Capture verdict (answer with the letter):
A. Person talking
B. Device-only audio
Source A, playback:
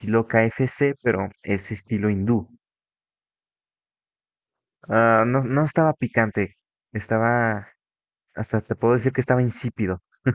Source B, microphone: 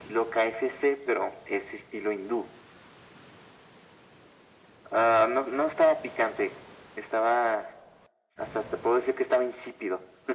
B